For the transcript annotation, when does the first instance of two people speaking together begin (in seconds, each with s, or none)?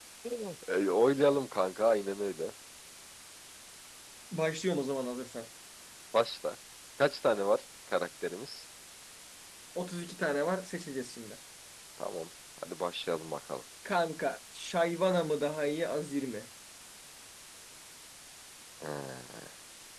none